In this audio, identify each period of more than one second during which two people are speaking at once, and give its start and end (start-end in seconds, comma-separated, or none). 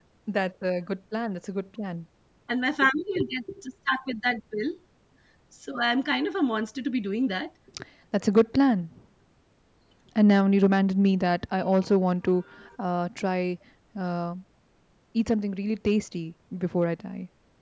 none